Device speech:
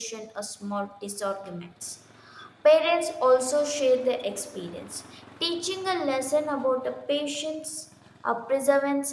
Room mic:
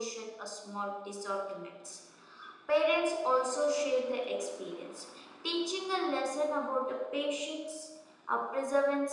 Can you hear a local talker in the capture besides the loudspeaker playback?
No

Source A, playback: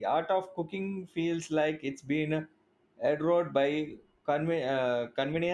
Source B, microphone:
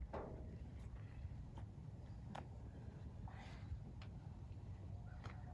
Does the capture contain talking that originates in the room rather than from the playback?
No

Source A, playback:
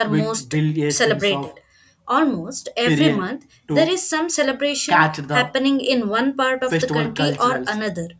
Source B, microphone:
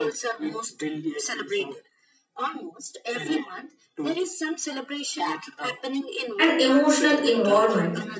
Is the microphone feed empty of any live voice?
No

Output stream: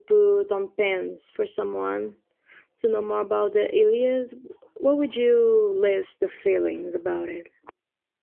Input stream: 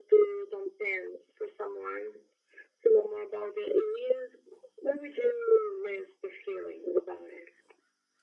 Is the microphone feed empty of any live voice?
Yes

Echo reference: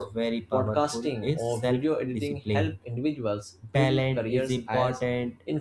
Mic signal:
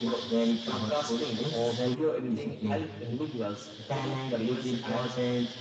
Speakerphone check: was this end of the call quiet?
Yes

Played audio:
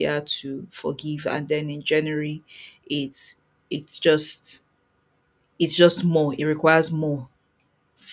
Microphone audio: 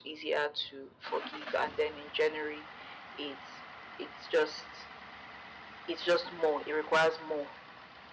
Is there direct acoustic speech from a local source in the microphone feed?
No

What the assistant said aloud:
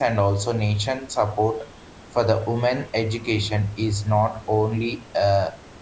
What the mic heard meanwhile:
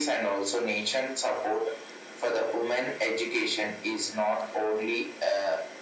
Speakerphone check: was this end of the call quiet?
Yes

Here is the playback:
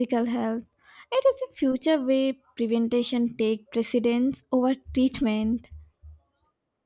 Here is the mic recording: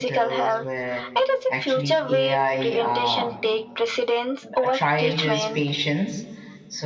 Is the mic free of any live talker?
No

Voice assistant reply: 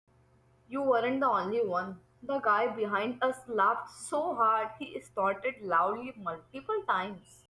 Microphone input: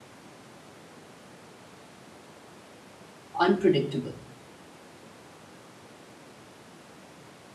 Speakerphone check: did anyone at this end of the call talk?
Yes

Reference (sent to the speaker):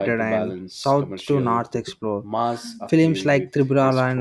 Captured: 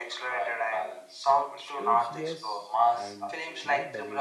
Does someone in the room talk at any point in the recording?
Yes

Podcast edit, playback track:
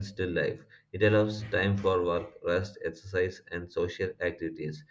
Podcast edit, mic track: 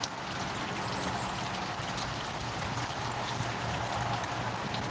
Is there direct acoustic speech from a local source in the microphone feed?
No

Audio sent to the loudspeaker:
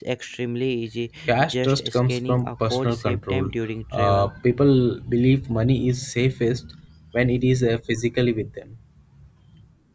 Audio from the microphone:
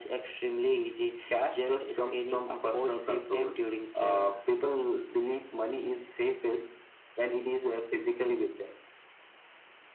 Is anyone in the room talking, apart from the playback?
No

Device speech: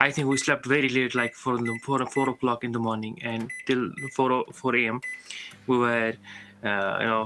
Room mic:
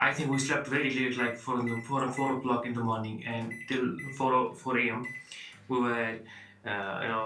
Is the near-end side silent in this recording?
Yes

